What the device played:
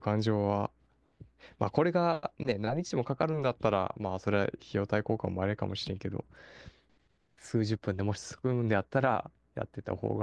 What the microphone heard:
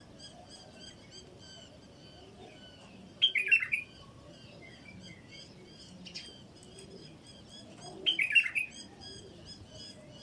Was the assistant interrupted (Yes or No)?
No